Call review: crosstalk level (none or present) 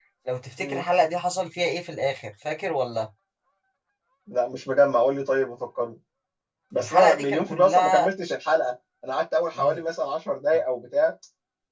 present